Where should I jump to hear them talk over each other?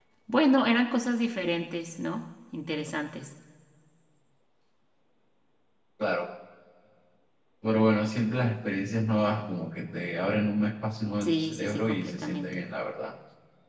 11.2 s

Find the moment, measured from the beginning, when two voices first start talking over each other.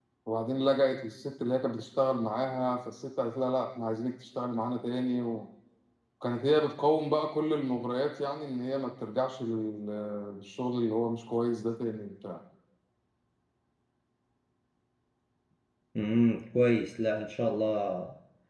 none

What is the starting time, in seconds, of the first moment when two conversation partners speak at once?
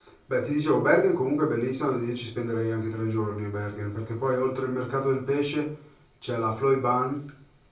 none

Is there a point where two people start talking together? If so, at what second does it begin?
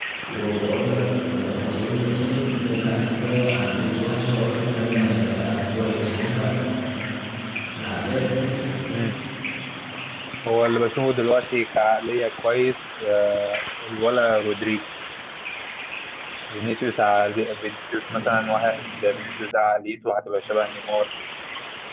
none

